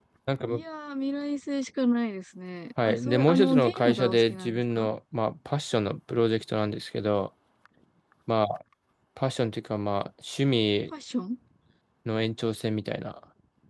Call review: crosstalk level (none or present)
present